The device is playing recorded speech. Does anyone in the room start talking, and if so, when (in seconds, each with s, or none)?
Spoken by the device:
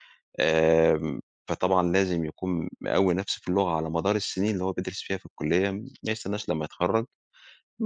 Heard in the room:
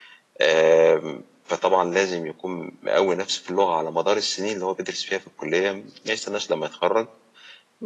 none